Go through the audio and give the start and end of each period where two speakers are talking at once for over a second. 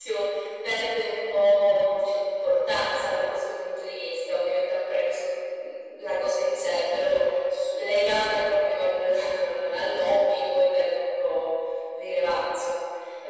none

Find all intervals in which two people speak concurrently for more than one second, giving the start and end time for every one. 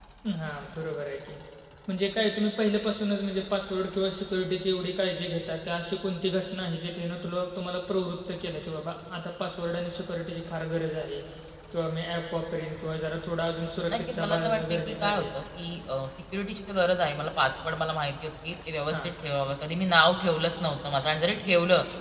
13.9-15.3

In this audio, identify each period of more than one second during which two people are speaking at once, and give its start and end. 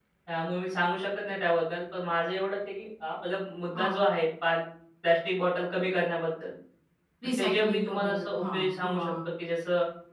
7.4-9.2

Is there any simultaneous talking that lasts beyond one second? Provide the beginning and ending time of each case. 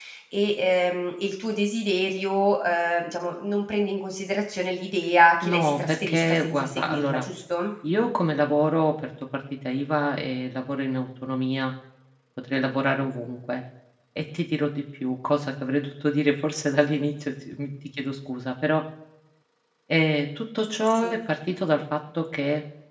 5.4-7.2

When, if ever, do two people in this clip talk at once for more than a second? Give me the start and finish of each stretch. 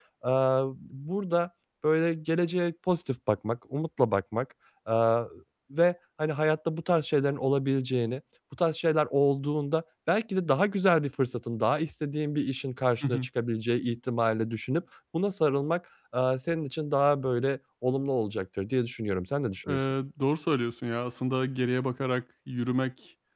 none

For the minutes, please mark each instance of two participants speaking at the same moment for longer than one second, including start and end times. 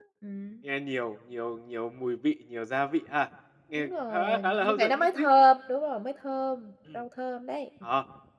3.8-5.2

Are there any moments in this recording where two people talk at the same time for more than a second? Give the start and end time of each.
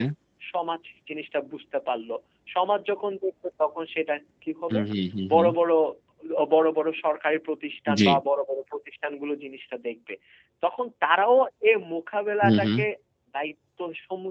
none

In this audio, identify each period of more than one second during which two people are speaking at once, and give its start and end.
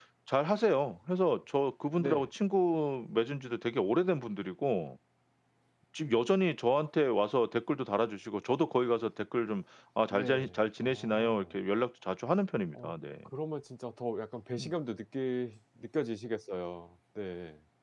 10.1-11.6

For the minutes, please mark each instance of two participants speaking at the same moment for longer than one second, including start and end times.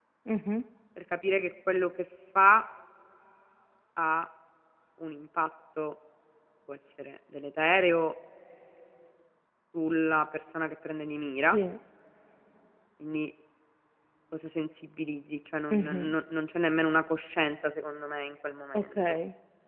none

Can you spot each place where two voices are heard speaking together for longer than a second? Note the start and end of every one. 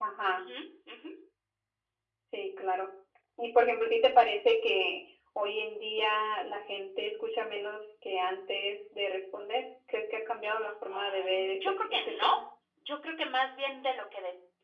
10.9-12.3

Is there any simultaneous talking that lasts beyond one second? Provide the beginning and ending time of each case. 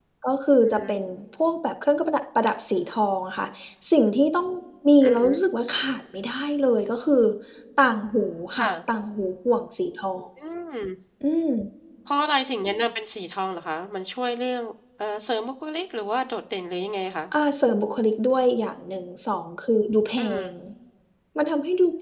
none

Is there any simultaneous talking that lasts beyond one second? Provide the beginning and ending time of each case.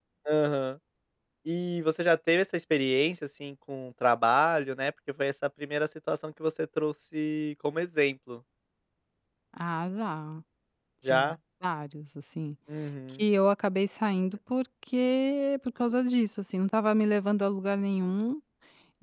none

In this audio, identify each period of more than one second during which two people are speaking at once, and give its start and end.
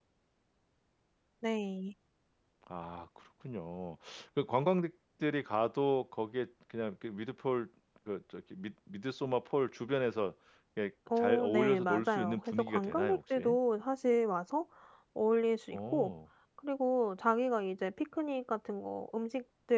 11.2-13.6

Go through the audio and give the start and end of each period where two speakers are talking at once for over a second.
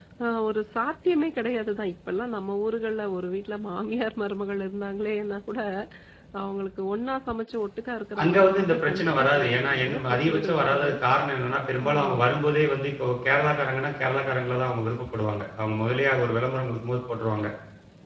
8.2-10.9

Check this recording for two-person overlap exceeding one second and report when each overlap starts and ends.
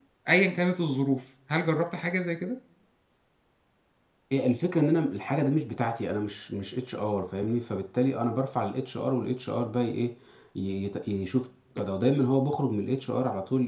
none

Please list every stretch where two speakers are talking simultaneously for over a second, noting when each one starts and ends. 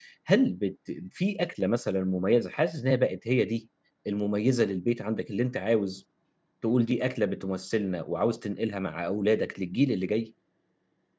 none

